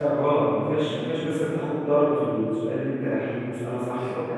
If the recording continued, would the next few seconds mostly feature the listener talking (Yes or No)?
Yes